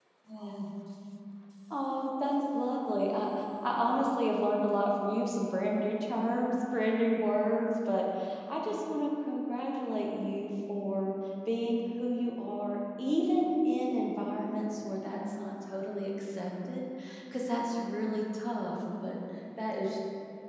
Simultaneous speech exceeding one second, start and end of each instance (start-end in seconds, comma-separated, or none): none